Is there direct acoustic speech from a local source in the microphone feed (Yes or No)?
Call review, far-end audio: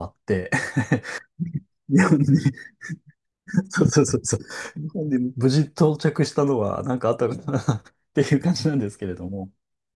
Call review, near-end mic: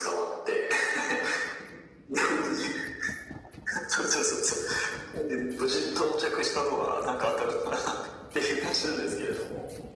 No